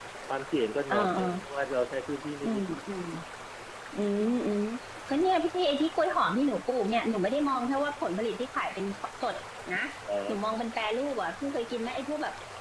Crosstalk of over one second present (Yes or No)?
No